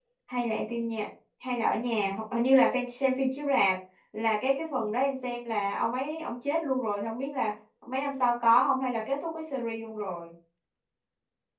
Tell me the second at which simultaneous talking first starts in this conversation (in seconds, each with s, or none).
none